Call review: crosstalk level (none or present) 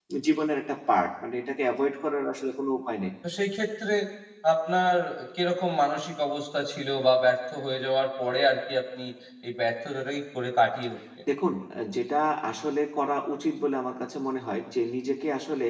none